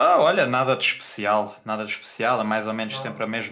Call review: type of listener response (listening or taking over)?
listening